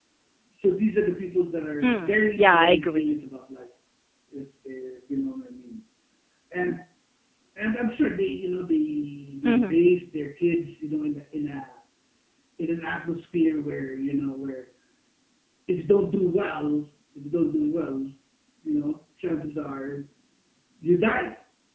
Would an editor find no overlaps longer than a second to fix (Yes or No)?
No